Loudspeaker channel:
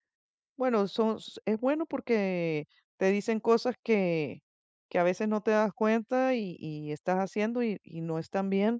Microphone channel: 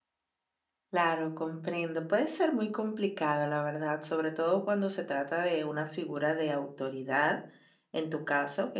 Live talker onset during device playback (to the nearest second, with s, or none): 1 s